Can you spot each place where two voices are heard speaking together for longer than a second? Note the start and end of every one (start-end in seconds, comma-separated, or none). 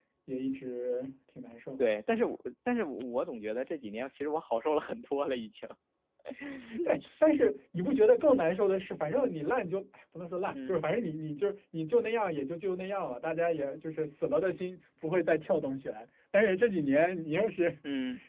none